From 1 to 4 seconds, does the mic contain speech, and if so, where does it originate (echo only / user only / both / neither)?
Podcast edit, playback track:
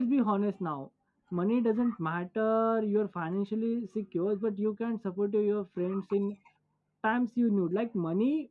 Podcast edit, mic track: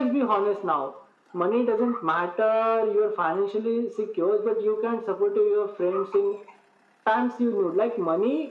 echo only